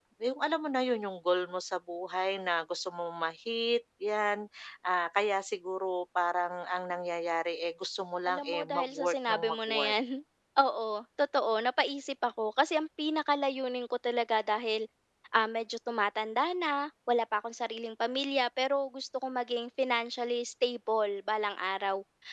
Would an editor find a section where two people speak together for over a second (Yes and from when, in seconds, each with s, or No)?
Yes, from 8.2 s